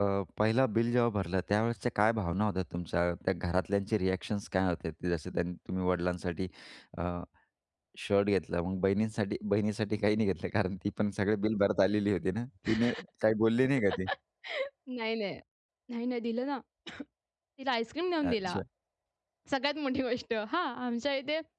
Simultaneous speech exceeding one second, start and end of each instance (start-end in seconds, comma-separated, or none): none